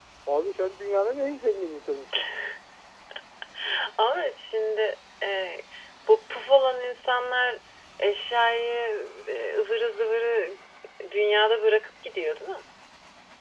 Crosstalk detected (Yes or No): No